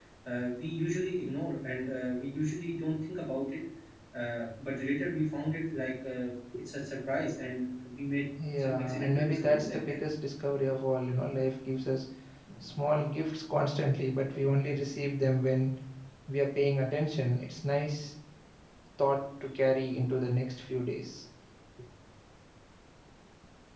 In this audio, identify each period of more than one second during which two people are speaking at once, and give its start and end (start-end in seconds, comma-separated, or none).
8.6-10.0